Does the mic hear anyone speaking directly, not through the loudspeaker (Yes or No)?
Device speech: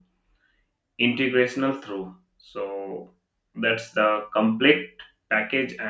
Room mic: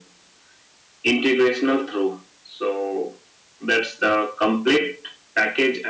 No